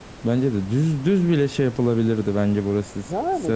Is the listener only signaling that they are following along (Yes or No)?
Yes